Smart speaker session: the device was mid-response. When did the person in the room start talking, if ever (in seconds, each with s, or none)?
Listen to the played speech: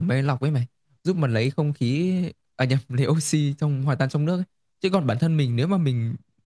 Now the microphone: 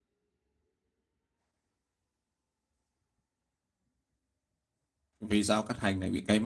5.2 s